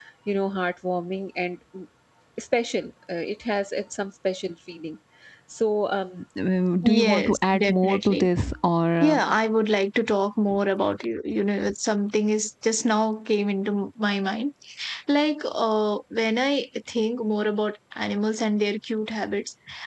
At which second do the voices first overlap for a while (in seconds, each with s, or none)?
6.8 s